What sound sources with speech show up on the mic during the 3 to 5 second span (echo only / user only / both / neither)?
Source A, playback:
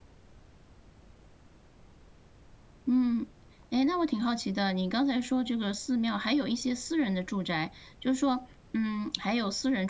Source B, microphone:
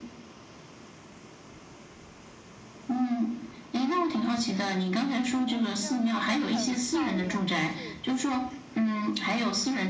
echo only